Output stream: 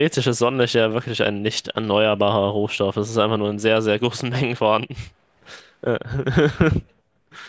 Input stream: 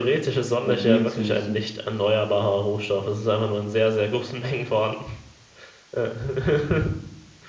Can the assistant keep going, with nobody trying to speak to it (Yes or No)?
No